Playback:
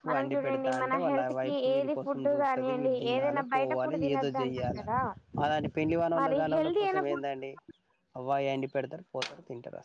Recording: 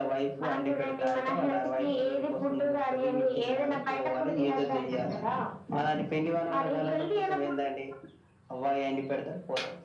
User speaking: Yes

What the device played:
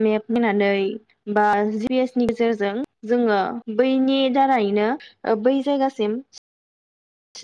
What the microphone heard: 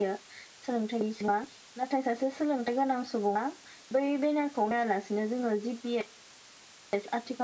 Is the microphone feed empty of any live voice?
No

